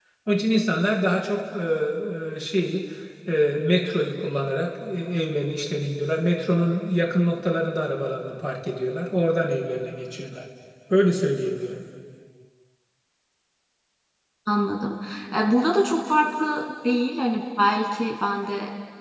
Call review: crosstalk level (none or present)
none